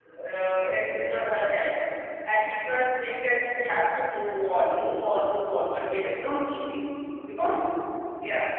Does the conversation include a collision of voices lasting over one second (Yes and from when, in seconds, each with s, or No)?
No